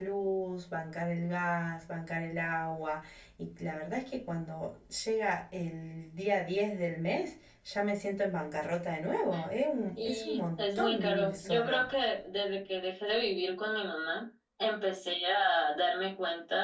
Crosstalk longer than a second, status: present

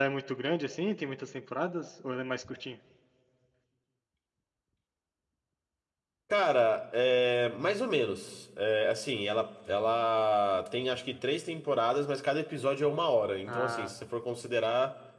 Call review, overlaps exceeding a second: none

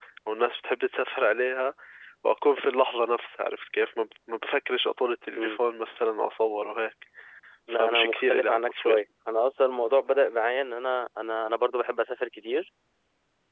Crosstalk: present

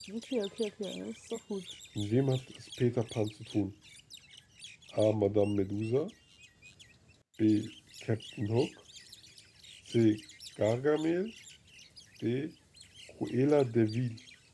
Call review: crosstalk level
none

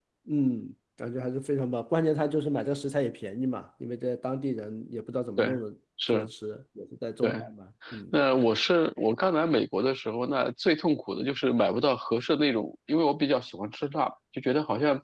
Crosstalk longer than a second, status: none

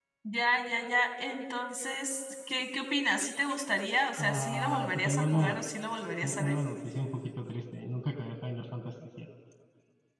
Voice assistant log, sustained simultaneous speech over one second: present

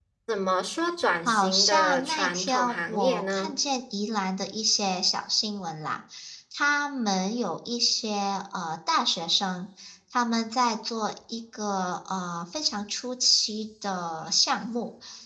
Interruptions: present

